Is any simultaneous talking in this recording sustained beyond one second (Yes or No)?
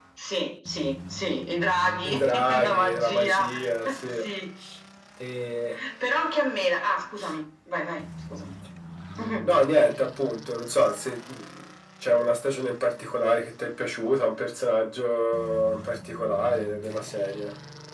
Yes